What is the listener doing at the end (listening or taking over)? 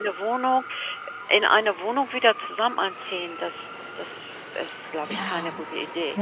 taking over